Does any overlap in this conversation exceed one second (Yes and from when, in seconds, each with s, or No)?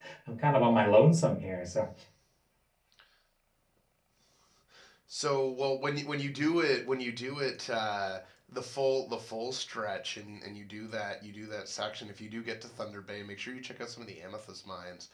No